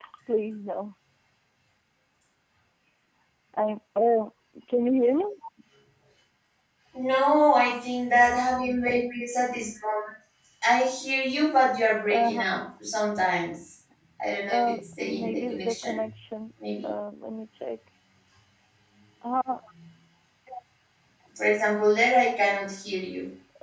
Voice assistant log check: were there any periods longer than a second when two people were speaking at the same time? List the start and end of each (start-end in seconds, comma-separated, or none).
14.5-16.0